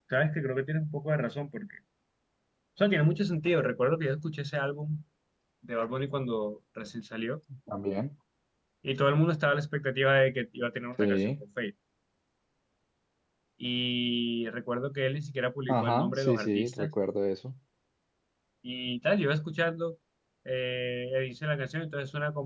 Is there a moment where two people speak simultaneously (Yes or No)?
Yes